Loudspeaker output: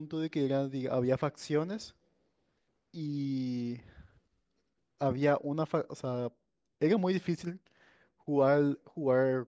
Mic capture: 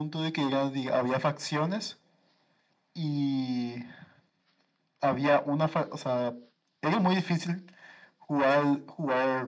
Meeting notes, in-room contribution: none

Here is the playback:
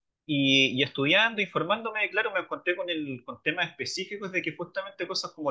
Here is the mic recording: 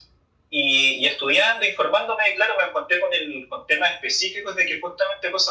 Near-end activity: none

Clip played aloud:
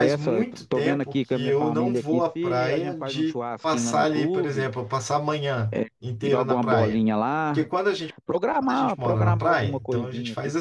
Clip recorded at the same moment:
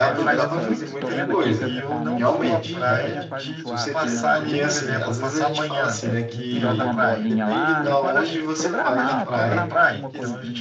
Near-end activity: present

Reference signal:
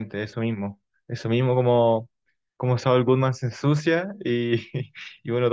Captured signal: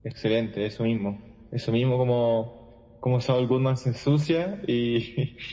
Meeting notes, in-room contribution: none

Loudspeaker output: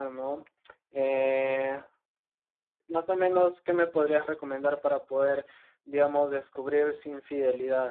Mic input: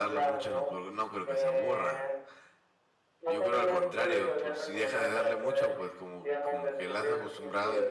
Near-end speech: present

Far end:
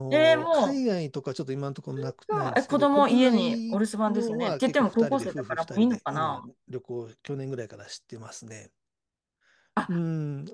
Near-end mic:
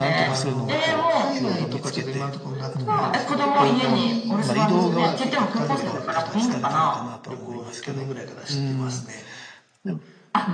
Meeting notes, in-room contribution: present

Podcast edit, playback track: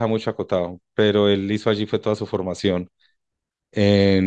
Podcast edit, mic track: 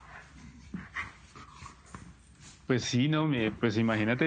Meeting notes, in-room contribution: present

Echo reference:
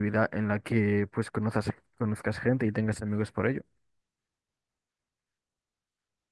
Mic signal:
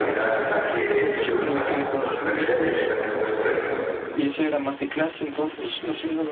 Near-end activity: present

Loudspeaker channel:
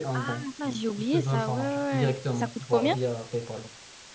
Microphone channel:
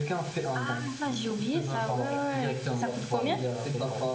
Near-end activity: present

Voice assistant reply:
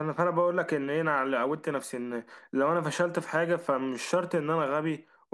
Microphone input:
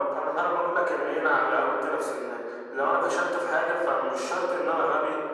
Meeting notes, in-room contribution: none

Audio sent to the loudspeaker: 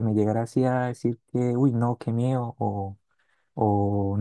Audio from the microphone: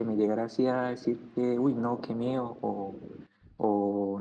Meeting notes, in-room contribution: none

